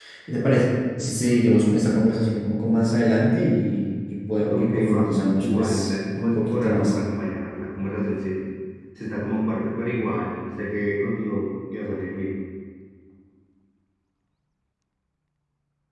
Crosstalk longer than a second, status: present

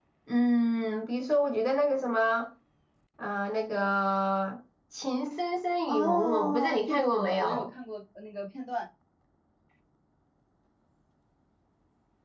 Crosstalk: present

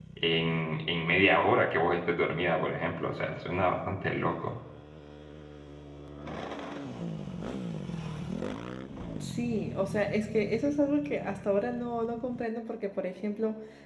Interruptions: none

